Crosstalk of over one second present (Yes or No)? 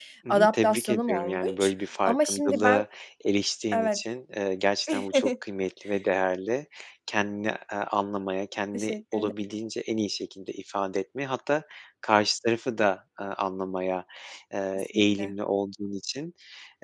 Yes